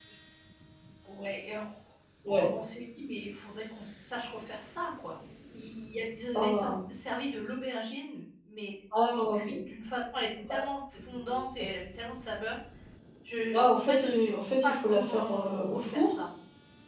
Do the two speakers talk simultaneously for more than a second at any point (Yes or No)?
Yes